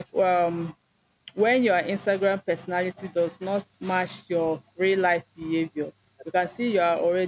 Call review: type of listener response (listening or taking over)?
listening